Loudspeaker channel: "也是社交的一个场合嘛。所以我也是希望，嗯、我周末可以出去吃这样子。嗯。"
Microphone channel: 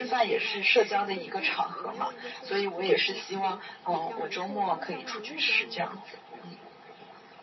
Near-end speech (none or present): present